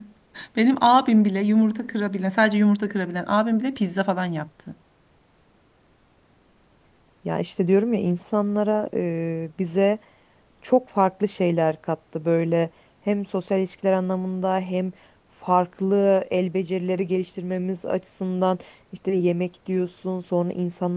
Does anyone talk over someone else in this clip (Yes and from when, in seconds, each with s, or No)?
No